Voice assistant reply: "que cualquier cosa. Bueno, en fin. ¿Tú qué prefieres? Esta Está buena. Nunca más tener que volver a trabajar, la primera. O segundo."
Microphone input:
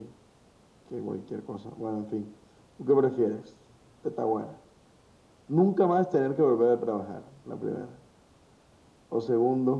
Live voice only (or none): none